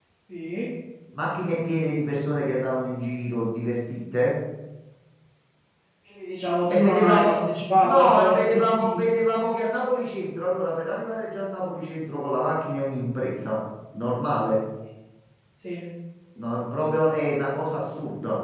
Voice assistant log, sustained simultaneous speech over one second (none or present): present